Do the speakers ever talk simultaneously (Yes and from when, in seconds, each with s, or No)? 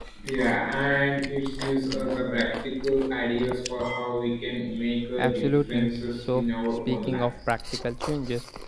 Yes, from 5.2 s